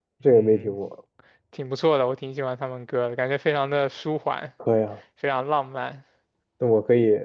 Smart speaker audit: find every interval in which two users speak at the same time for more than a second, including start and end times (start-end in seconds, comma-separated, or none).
none